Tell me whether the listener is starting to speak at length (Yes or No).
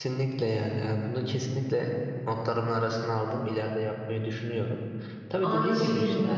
No